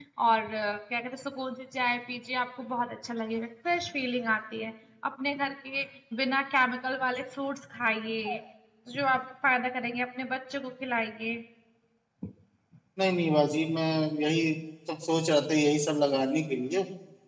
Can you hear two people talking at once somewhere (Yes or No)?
No